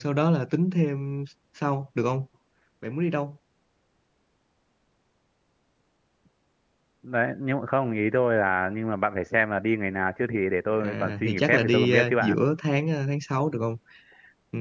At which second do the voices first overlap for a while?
10.7 s

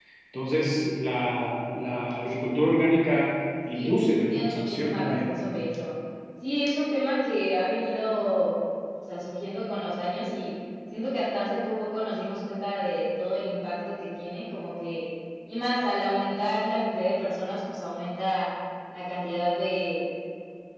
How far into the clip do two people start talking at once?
3.7 s

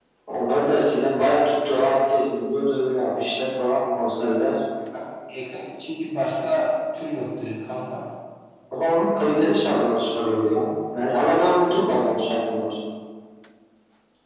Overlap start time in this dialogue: none

